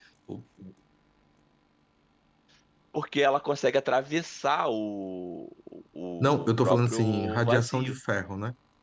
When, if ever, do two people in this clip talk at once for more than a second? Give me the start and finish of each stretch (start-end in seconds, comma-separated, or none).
6.2-7.9